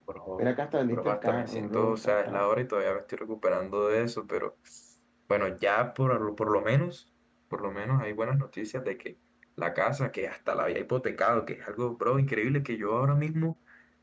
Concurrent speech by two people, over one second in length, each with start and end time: 0.9-2.2

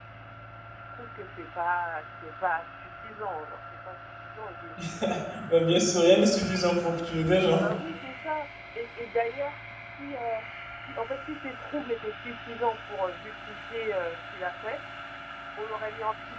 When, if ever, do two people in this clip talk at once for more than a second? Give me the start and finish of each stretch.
none

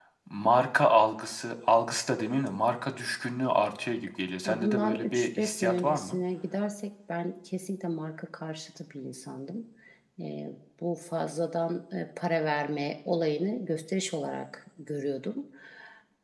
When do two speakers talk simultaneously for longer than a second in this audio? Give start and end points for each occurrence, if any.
4.4-6.2

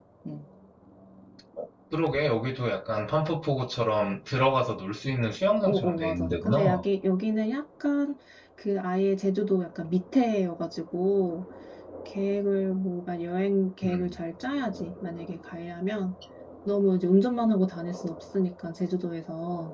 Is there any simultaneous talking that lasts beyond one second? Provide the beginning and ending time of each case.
5.6-6.8

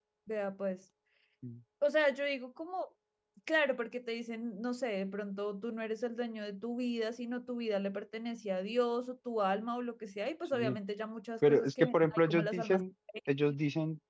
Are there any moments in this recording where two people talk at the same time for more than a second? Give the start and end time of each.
11.5-12.8

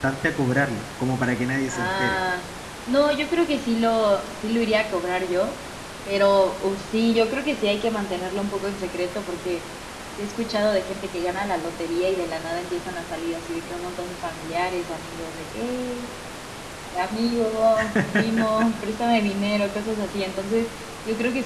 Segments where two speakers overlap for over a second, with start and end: none

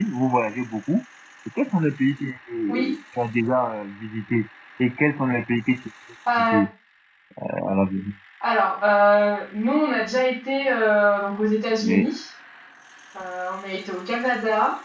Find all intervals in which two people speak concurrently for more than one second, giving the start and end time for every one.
none

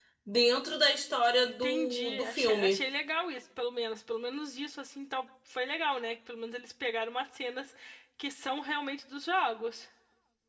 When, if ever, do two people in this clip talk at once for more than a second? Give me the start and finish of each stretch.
1.4-2.8

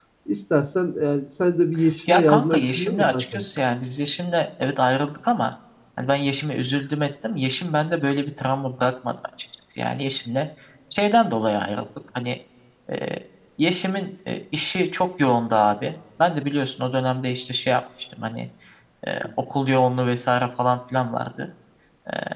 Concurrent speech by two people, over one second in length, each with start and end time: 2.1-3.4

